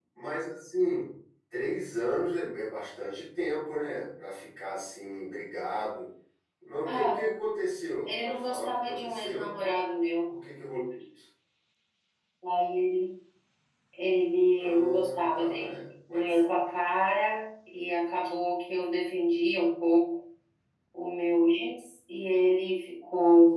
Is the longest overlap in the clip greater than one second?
Yes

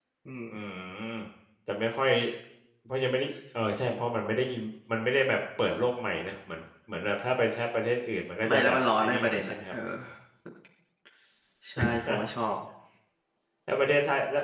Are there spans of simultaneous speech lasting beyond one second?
Yes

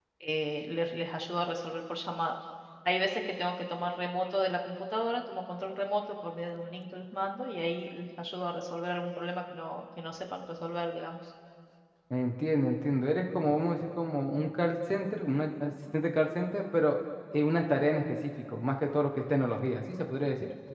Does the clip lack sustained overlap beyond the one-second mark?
Yes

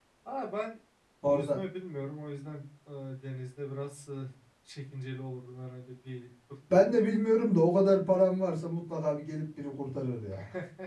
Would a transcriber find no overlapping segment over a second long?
Yes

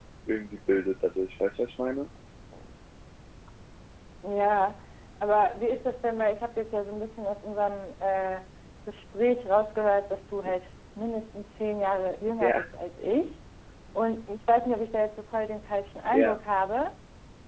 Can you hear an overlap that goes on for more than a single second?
No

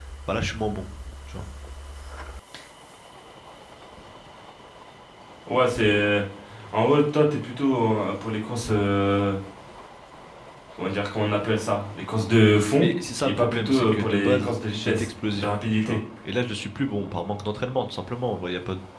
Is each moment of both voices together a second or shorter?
No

